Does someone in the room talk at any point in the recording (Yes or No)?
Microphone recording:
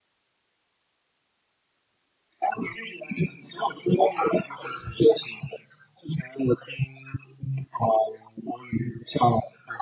No